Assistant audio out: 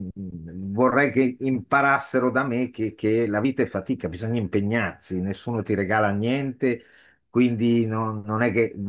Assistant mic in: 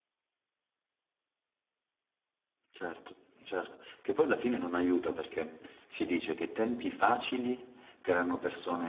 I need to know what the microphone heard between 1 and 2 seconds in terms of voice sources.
neither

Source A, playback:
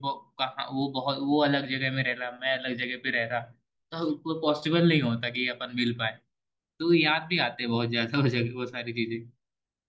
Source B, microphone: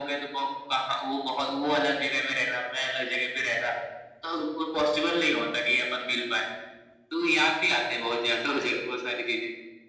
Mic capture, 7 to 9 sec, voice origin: echo only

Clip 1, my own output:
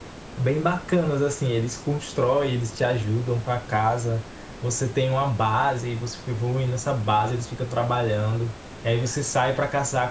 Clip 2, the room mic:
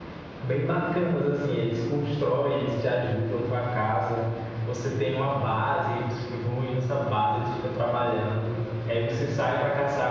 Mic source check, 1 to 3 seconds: echo only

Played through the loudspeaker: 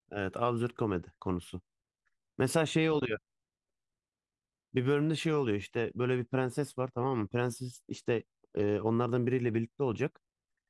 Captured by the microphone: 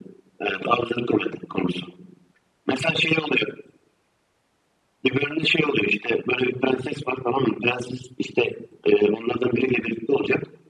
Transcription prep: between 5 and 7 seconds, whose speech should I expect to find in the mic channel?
echo only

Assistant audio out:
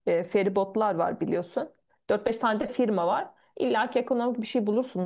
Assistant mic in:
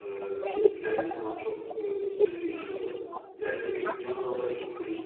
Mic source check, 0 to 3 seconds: both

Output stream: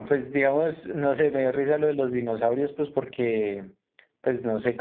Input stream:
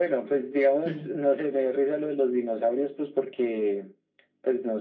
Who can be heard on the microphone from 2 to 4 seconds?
echo only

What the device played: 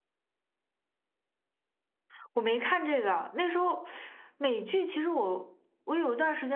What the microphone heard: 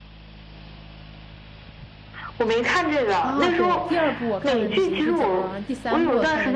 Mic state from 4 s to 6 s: both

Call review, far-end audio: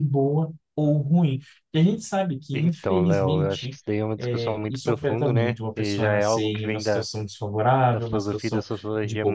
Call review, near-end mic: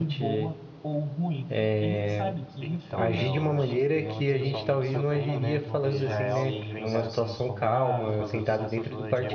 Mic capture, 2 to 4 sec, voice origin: both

